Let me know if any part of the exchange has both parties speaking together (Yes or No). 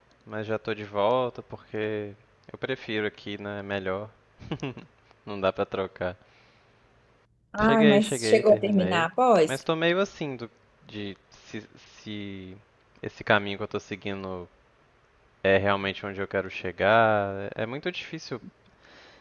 Yes